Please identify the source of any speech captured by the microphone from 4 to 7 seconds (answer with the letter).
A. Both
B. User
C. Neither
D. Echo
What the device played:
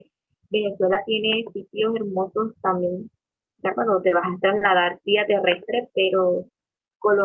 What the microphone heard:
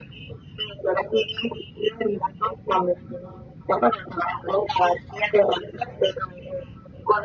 D